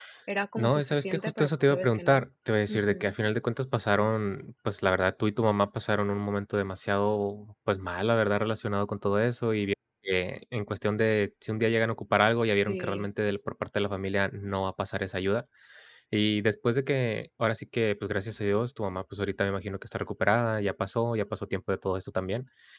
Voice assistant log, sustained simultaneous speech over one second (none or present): present